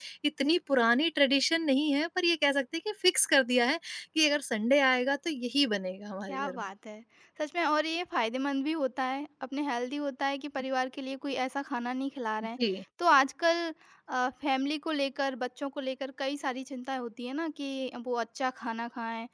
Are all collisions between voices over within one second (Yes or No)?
Yes